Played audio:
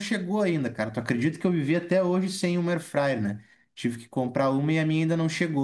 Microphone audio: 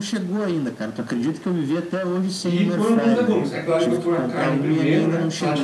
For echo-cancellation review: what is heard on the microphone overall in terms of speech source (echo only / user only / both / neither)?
both